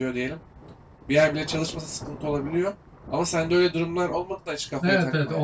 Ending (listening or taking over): taking over